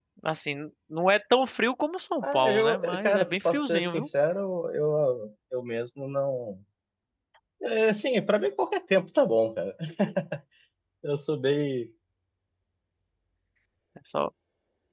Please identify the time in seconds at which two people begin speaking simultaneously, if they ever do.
2.2 s

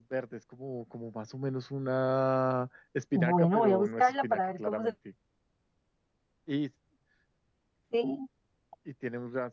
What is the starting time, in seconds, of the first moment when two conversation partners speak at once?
3.1 s

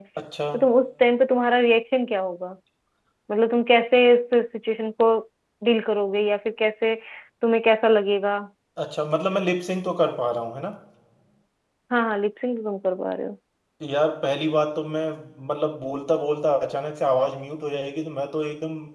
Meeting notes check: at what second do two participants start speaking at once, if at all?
none

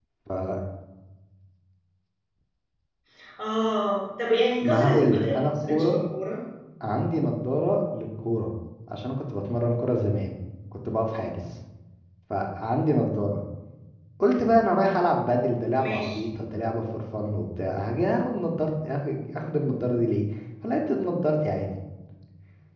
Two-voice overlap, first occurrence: 4.7 s

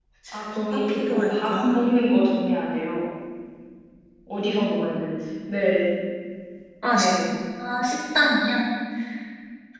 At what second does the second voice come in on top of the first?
0.6 s

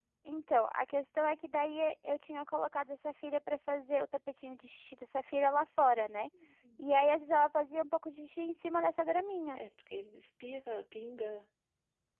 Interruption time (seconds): none

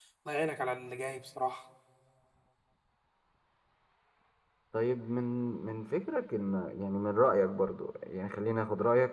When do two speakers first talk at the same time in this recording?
none

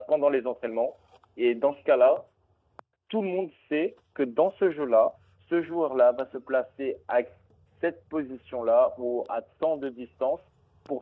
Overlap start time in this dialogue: none

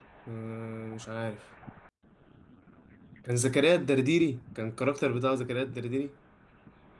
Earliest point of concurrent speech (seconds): none

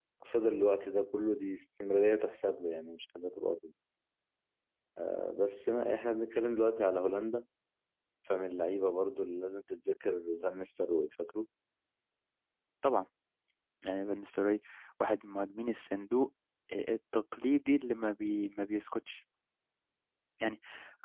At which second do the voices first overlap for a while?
none

